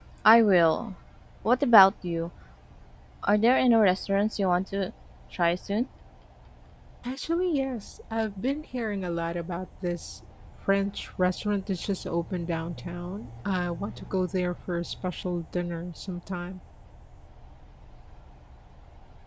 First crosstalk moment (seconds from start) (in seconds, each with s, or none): none